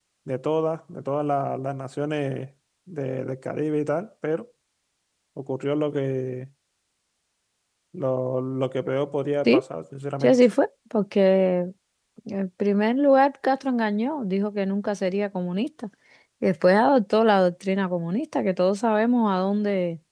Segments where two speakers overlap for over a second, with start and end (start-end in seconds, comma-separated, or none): none